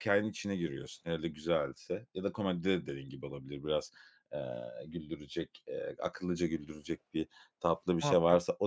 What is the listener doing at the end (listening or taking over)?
listening